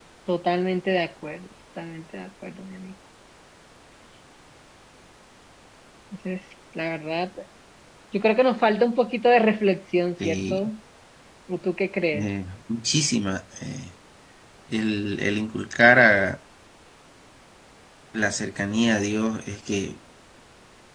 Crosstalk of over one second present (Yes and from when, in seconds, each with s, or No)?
No